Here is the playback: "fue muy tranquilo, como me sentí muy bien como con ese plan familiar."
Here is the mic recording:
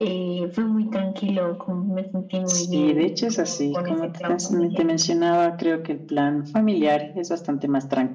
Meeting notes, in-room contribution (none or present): present